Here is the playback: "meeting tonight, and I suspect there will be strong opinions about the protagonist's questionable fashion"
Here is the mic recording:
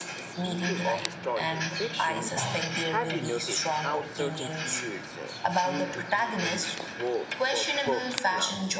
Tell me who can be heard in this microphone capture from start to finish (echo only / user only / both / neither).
both